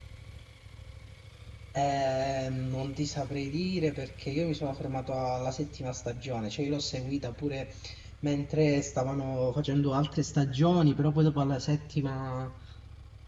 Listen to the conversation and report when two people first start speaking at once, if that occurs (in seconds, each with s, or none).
none